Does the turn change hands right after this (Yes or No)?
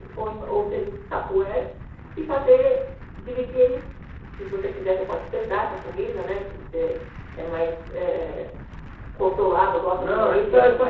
Yes